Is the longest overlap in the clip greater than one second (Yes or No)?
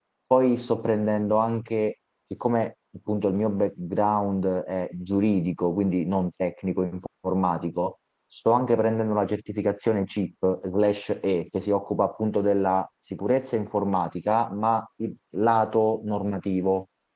No